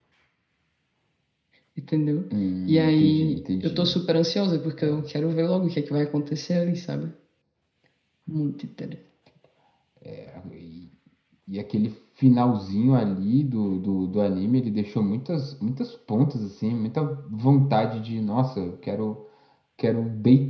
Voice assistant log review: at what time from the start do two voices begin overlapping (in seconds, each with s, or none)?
2.7 s